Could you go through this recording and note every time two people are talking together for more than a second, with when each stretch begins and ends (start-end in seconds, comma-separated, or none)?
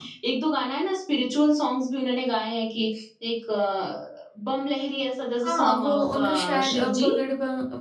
5.4-7.1